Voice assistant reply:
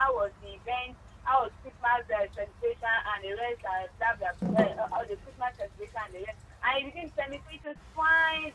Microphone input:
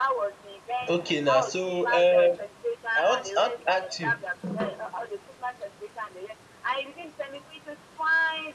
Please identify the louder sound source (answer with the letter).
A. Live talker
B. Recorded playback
A